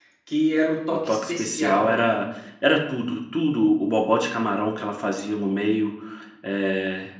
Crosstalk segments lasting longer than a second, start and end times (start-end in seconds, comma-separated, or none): 0.9-2.2